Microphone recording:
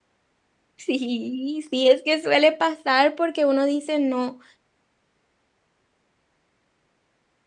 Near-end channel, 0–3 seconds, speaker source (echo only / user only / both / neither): user only